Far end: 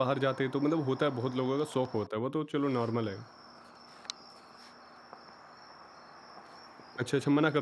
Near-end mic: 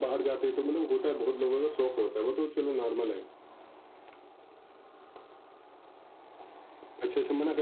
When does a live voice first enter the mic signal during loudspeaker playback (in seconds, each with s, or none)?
none